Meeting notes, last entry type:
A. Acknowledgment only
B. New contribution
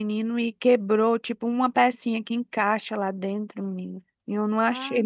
A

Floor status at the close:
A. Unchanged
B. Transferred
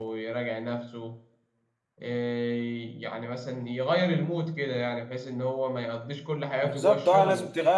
B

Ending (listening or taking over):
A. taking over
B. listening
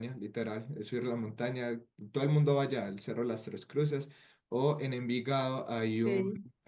B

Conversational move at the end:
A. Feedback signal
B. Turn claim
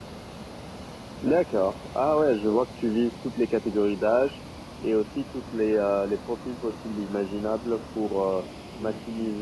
A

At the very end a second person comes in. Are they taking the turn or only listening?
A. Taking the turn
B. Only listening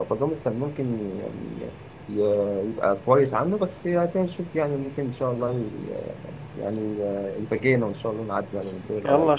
A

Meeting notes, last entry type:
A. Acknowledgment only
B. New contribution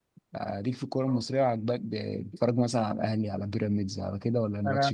B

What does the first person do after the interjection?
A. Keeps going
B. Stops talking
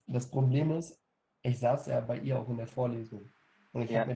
A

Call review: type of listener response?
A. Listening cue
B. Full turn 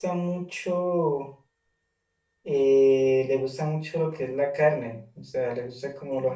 A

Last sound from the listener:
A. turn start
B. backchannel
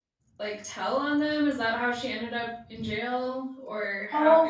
A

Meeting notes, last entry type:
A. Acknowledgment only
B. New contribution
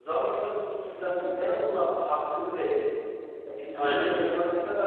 A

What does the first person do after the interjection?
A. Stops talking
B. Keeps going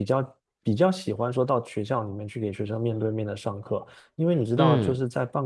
B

